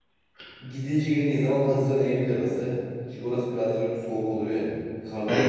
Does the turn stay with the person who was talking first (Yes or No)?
Yes